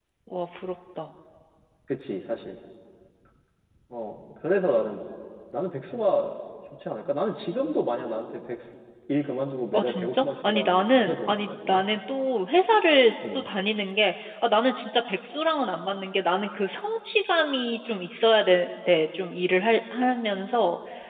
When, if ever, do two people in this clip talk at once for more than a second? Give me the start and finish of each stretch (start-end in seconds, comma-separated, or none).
9.7-11.8